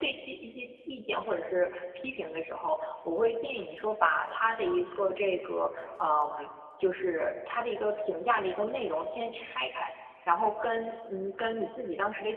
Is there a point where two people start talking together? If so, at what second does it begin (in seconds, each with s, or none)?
none